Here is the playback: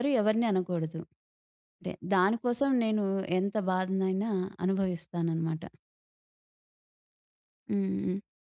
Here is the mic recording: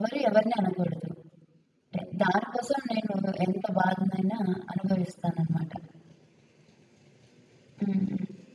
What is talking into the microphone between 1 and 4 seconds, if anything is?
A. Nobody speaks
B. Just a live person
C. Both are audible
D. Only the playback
D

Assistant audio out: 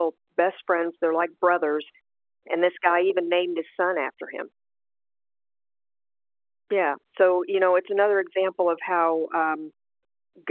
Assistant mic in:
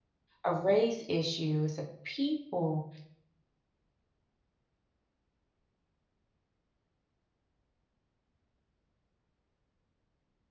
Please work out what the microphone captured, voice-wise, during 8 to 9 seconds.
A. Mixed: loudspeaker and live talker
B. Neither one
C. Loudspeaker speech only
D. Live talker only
B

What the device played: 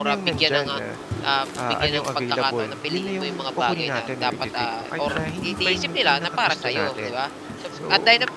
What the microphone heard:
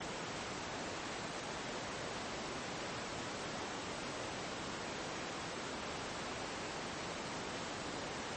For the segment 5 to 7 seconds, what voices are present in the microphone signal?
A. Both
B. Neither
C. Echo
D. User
B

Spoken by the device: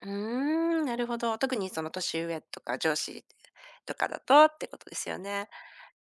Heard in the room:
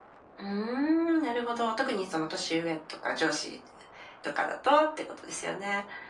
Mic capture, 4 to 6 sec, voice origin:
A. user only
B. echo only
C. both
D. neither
B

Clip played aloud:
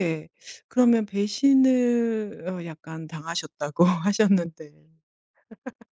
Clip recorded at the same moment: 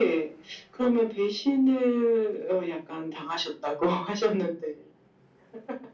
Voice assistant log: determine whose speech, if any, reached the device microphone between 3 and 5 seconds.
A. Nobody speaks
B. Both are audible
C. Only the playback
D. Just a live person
C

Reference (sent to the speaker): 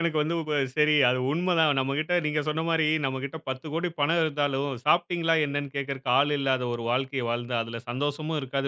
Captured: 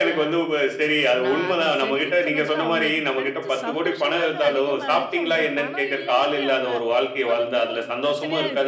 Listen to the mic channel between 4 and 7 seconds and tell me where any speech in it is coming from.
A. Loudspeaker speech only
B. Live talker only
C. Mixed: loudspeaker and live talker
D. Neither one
C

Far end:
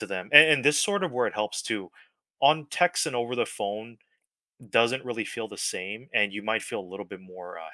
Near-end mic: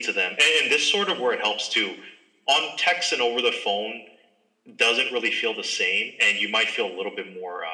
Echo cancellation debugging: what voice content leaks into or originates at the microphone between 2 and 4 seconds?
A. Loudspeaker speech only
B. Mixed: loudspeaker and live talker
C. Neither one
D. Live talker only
A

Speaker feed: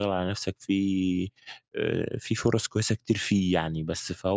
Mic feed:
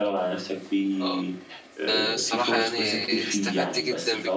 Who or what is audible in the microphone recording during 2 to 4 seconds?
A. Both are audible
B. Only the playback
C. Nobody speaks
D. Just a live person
A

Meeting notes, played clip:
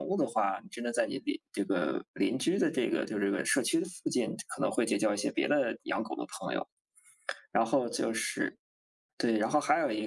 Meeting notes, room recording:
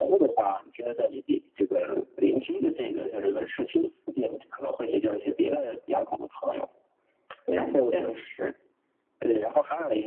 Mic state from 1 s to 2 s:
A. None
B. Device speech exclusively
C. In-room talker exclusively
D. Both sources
B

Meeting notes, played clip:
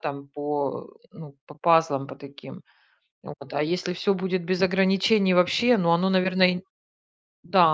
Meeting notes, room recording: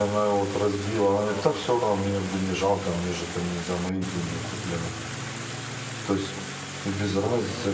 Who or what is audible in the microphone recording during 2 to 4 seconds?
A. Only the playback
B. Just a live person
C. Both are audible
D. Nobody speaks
B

